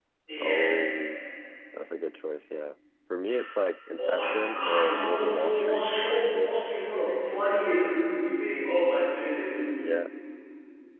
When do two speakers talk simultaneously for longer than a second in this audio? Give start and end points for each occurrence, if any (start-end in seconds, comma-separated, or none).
4.0-6.5